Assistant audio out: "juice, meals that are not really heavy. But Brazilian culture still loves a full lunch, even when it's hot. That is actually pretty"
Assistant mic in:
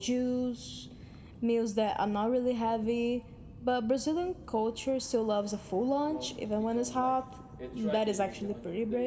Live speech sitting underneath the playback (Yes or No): Yes